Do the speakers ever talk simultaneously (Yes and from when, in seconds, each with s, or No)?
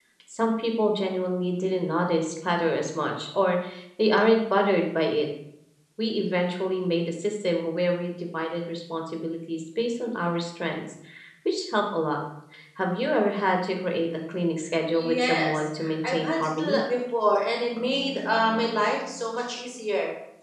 Yes, from 14.9 s